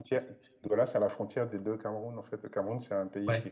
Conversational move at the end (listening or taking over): listening